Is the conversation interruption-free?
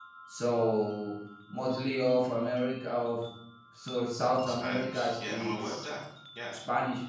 No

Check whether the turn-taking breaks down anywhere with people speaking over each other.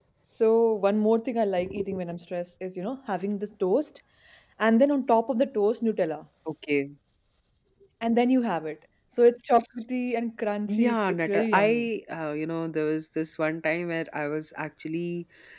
Yes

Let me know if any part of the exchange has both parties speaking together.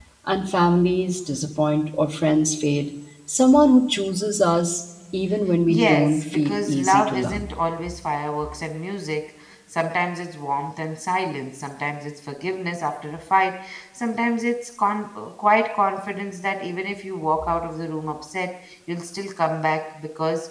Yes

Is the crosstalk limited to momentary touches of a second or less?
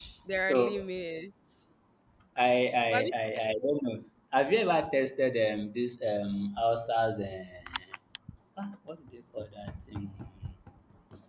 Yes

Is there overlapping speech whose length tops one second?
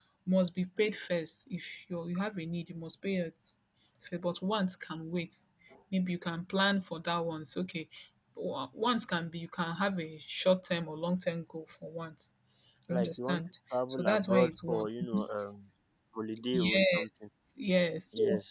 Yes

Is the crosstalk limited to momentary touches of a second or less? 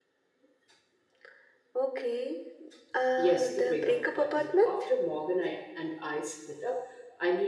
No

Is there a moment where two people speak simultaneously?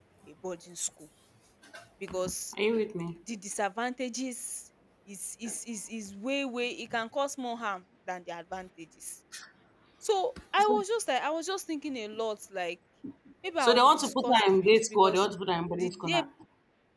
Yes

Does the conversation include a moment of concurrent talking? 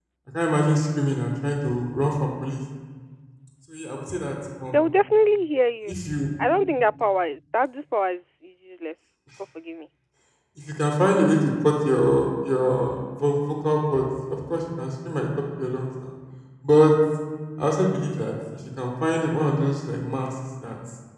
No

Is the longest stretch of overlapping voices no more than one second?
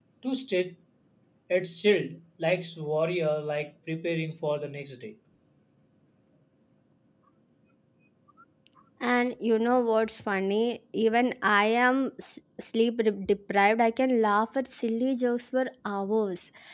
Yes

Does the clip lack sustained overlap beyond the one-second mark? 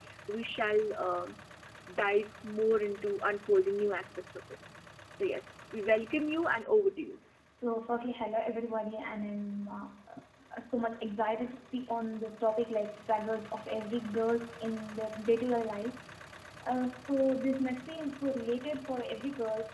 Yes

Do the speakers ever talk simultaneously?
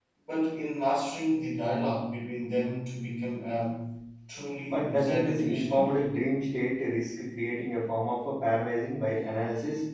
Yes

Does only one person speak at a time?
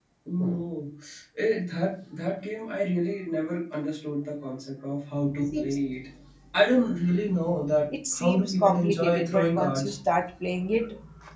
No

